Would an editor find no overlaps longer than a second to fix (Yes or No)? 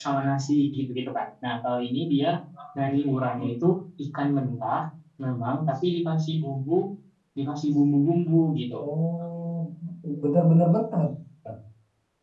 Yes